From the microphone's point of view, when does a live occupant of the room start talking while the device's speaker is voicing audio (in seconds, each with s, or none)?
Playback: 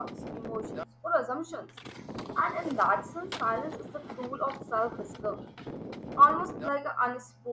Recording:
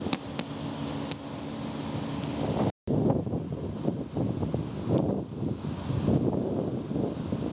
none